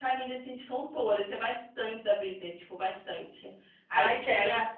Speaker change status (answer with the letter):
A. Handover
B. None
B